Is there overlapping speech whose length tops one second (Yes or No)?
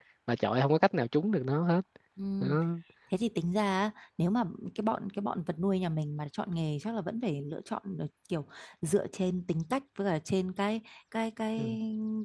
No